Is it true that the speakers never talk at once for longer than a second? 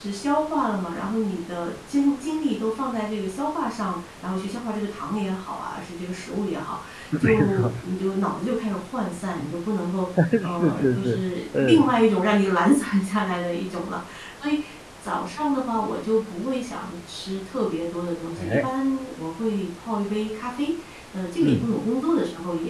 No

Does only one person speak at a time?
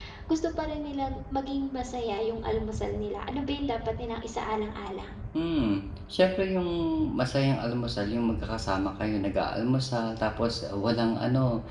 Yes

